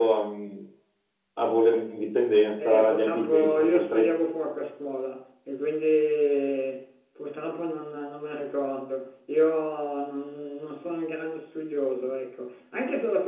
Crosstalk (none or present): present